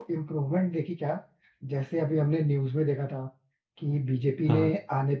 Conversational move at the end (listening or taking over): listening